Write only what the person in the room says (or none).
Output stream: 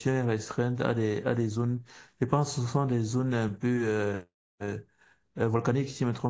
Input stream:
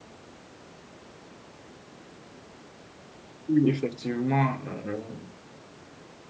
oui, effectivement, euh,